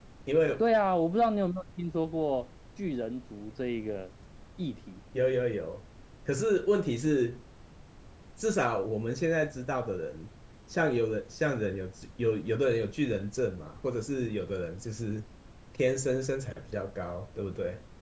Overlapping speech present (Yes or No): No